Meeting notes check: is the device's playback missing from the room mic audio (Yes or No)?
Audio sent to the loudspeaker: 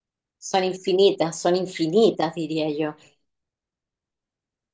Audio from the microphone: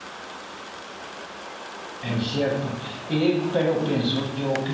Yes